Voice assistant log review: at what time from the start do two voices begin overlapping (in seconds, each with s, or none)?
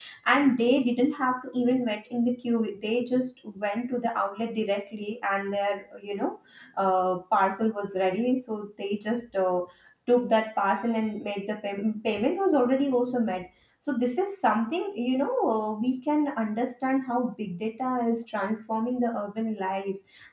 none